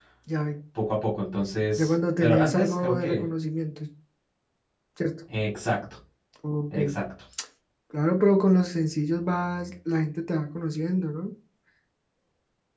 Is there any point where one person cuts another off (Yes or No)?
Yes